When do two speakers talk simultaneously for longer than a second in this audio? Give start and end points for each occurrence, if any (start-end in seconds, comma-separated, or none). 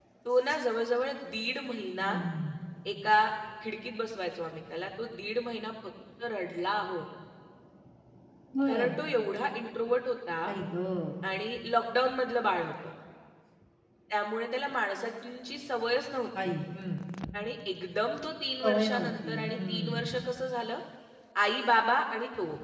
18.6-20.1